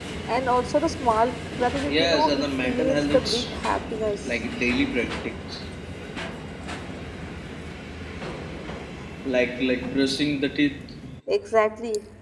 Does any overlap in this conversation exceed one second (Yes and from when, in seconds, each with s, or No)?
Yes, from 1.9 s